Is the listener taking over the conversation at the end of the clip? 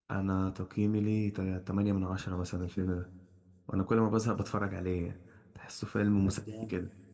Yes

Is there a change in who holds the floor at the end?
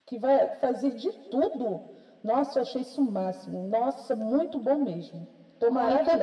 Yes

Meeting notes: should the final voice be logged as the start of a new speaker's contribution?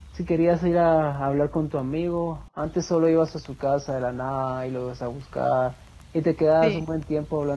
No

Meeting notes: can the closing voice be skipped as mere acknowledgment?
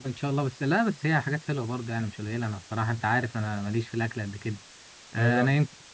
Yes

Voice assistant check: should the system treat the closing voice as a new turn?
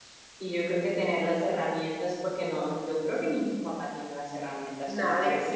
No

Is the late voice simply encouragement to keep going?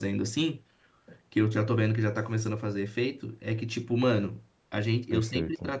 Yes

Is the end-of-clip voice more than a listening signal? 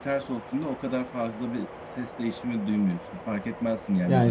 Yes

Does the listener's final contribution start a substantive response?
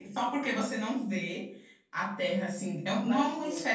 No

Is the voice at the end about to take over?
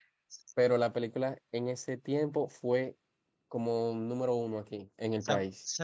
Yes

